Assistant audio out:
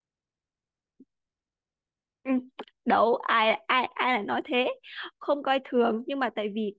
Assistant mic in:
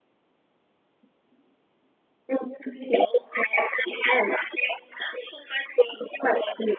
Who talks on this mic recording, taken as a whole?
echo only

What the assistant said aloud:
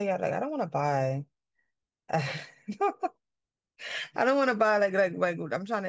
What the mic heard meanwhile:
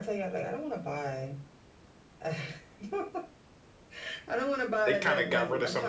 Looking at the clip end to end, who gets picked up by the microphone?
both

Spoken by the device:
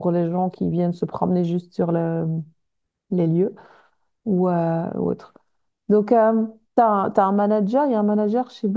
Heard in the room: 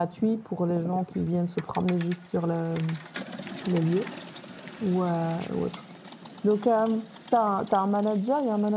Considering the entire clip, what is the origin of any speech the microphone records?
echo only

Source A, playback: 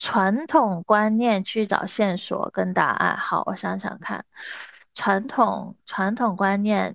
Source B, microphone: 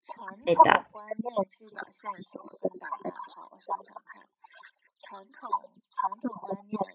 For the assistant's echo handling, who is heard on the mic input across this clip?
both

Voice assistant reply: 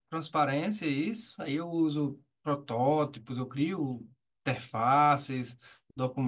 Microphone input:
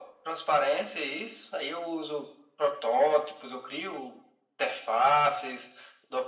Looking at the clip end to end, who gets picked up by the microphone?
echo only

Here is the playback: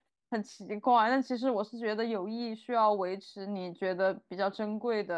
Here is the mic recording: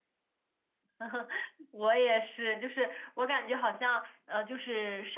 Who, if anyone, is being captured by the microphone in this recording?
user only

